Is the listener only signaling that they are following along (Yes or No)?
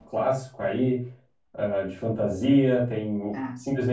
Yes